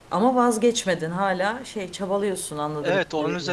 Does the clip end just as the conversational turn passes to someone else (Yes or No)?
Yes